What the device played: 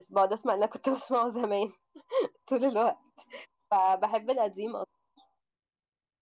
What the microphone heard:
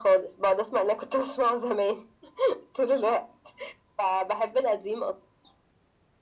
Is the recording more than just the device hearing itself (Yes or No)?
No